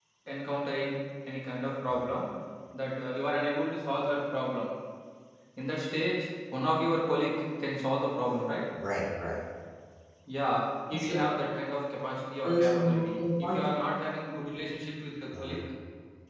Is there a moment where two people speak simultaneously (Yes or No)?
Yes